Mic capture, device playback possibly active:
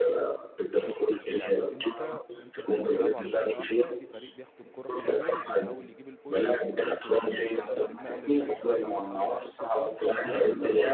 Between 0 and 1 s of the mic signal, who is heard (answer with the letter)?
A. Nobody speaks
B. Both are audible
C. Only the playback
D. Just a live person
C